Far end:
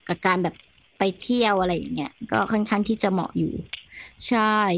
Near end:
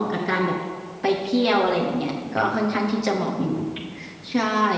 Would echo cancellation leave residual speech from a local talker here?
No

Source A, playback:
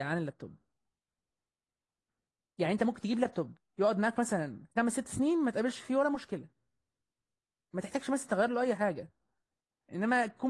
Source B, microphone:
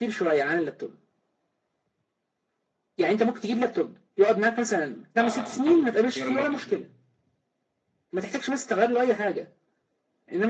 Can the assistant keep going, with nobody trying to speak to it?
No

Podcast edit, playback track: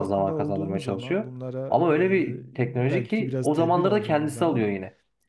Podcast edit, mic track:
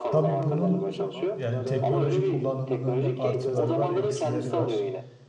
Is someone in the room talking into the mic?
Yes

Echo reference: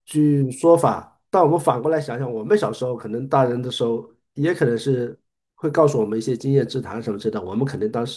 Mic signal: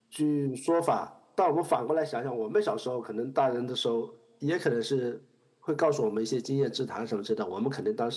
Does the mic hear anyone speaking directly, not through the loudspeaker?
No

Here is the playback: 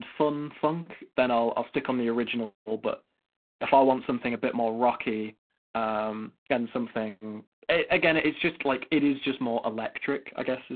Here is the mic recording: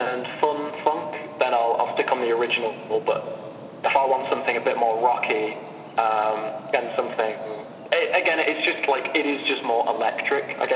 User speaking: No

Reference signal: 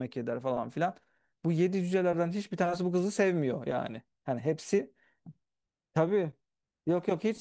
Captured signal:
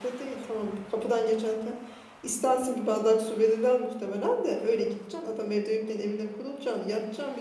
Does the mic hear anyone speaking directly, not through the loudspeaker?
Yes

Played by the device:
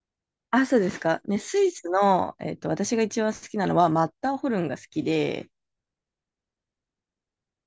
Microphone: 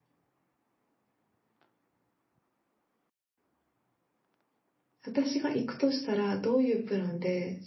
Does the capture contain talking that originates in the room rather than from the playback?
Yes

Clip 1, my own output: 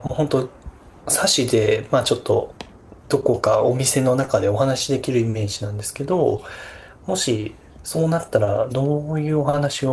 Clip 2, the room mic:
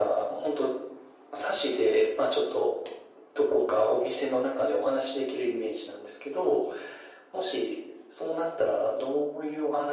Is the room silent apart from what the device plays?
Yes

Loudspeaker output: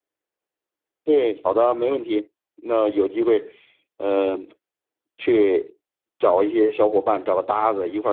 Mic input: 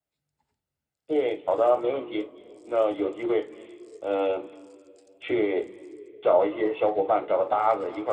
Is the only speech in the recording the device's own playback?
Yes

